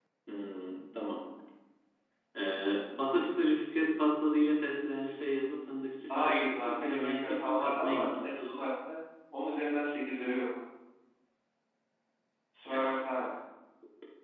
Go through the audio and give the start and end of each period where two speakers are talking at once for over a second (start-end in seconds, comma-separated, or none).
6.1-8.4